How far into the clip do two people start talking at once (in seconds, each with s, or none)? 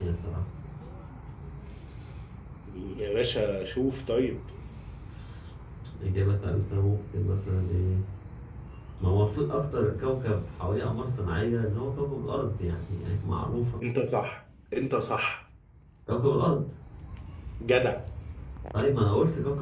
none